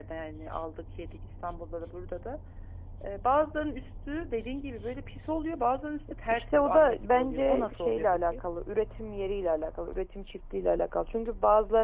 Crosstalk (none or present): present